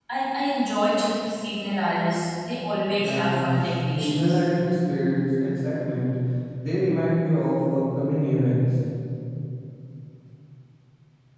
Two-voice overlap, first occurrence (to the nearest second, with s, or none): 3 s